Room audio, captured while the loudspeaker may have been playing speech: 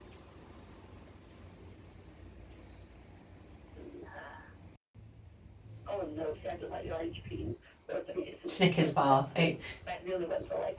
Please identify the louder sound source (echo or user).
user